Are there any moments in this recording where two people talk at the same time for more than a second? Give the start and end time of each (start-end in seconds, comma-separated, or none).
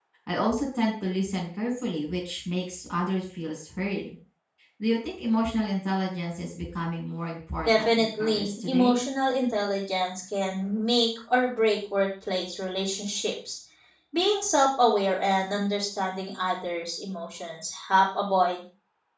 7.7-9.0